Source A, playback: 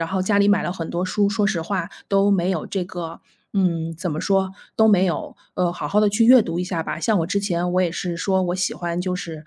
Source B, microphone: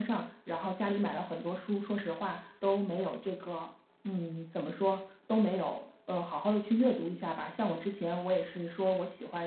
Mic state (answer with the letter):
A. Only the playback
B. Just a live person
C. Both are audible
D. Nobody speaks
A